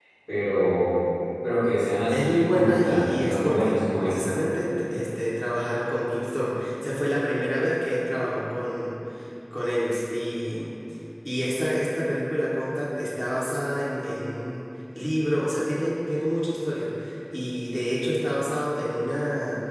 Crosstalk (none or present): present